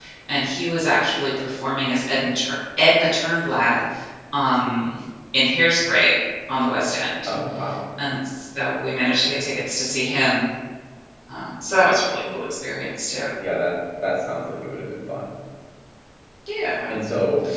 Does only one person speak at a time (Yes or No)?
Yes